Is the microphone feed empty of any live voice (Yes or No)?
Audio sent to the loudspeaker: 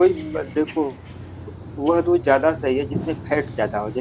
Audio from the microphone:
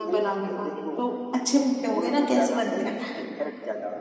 No